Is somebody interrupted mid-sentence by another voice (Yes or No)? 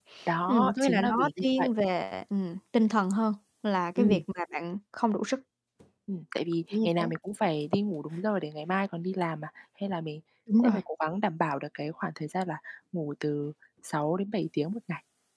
Yes